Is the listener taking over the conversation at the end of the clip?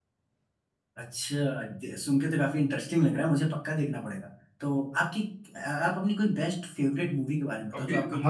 Yes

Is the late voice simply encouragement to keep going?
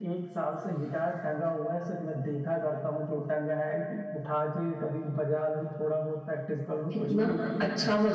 No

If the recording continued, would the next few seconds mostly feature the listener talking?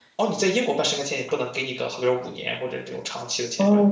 Yes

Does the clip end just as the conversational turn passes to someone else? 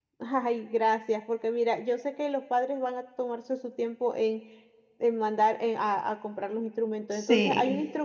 No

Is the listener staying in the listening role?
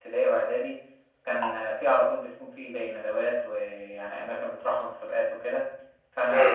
Yes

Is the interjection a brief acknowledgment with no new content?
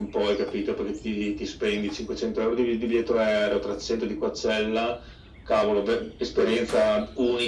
Yes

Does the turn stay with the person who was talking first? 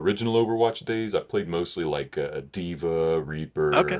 Yes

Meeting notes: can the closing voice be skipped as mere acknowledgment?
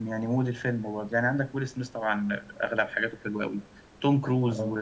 Yes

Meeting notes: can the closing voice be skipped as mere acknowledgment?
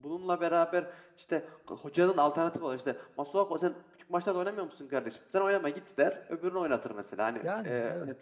Yes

